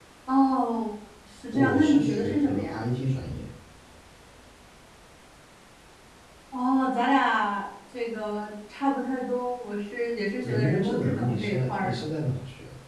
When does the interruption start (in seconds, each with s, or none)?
1.5 s